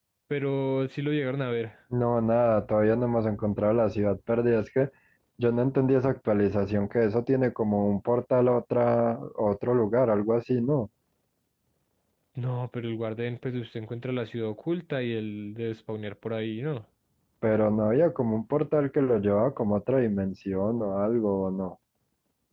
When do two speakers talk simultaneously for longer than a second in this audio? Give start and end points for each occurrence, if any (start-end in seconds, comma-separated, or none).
none